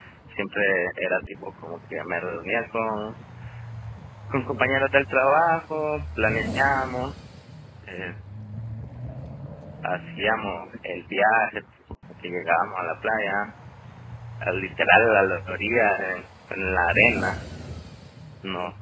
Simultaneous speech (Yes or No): No